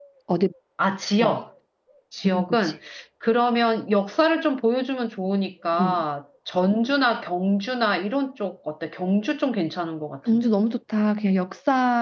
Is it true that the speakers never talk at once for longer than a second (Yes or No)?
Yes